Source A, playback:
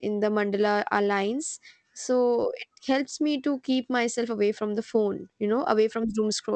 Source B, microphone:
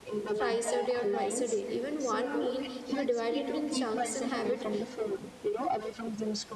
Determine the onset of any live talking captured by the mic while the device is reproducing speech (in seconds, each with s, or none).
0.3 s